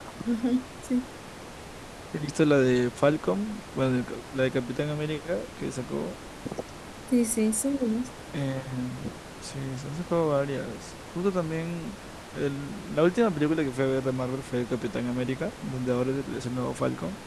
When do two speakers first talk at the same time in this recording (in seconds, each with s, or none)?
none